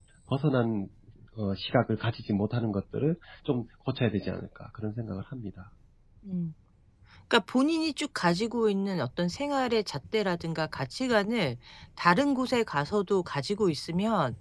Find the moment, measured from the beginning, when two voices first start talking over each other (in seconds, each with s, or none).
none